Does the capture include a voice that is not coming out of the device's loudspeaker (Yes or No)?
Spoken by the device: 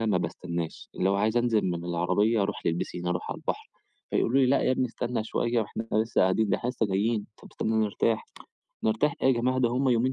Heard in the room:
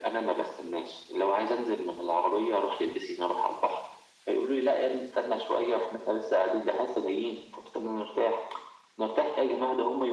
No